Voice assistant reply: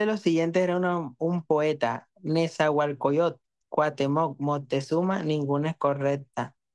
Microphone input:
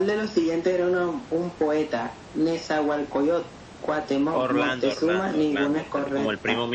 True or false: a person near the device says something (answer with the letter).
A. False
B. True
B